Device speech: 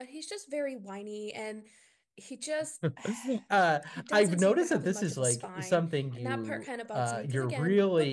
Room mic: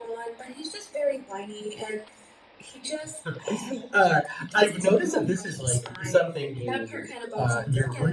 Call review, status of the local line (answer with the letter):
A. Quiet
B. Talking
A